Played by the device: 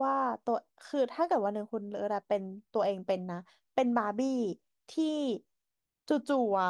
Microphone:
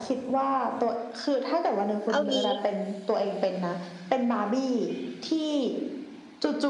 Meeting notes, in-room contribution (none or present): present